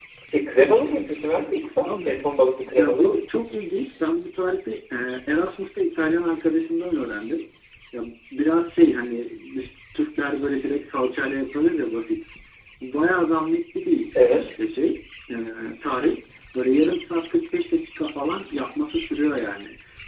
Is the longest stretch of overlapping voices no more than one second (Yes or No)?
Yes